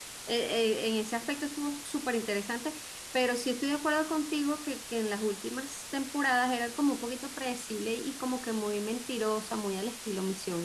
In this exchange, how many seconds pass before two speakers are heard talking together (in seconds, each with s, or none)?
none